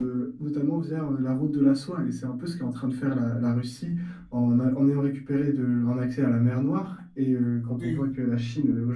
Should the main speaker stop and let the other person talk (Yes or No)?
No